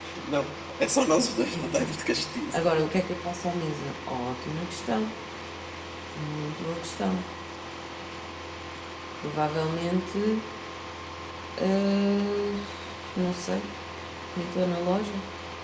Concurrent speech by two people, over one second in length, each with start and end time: none

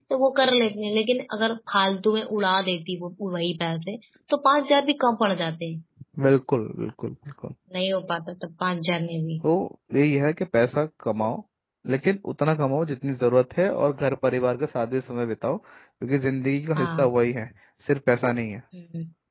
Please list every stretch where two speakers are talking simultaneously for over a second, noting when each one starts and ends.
none

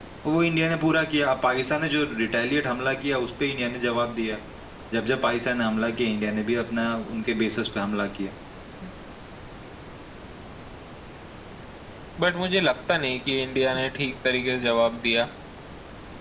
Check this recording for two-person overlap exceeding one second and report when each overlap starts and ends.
none

